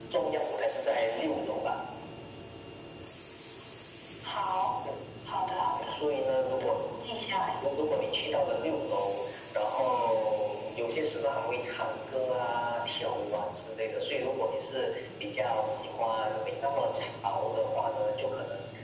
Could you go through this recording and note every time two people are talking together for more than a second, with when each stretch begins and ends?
none

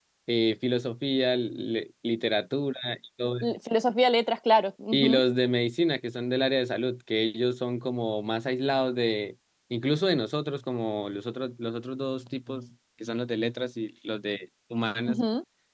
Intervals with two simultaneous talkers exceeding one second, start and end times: none

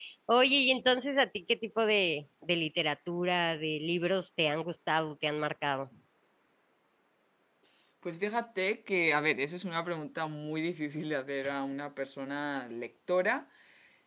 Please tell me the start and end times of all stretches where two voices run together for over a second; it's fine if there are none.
none

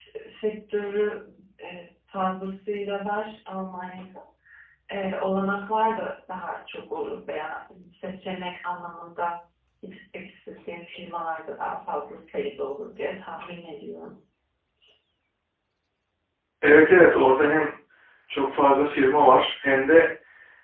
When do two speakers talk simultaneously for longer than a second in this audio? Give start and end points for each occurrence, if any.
none

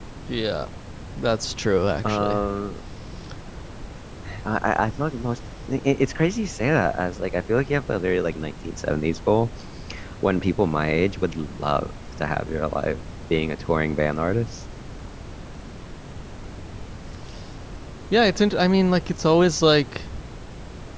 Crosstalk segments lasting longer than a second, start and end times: none

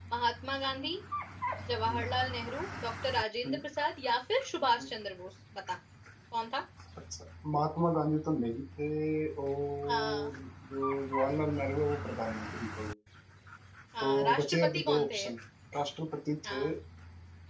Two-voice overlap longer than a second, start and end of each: 14.0-15.2

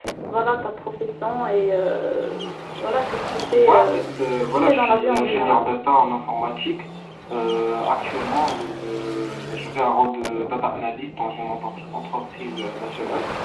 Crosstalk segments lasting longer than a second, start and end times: 3.7-5.6

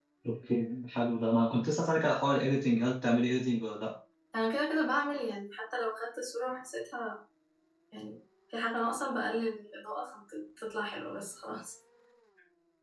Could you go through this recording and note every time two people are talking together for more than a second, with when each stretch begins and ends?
none

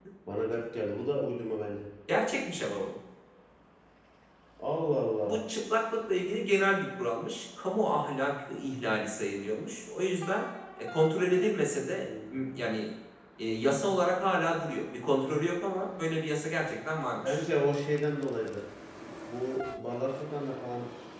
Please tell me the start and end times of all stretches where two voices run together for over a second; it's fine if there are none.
none

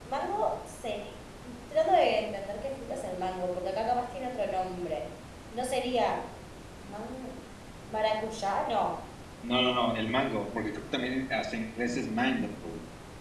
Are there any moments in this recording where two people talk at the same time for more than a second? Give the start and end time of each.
none

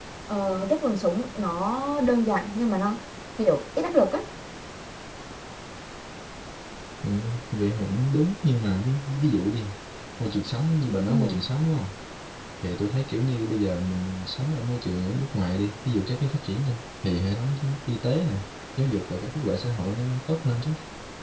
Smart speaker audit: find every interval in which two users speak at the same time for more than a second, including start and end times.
none

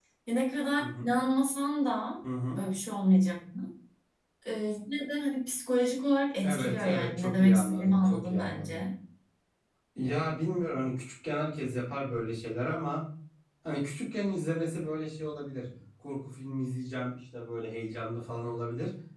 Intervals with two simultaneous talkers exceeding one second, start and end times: 6.4-8.8

